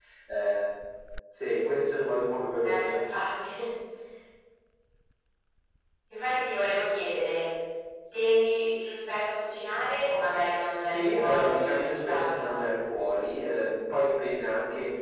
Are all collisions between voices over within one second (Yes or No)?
No